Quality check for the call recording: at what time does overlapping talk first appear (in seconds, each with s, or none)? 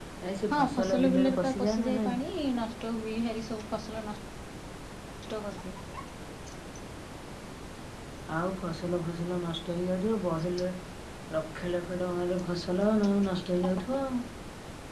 0.5 s